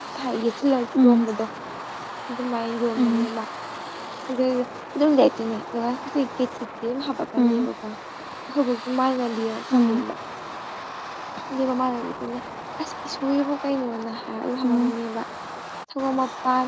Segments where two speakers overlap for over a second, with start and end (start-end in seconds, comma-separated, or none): none